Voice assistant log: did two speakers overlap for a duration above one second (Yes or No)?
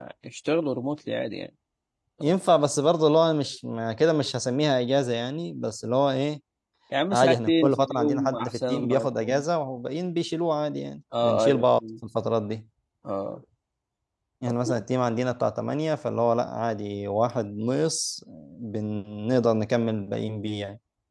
Yes